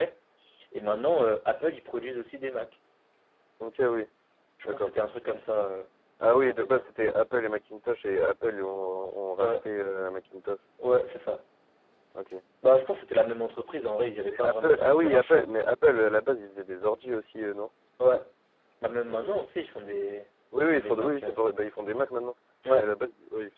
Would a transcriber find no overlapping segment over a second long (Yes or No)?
No